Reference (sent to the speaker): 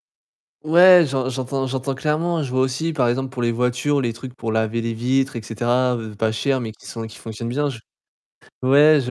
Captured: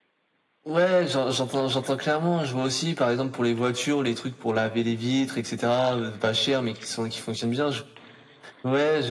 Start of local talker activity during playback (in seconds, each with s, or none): none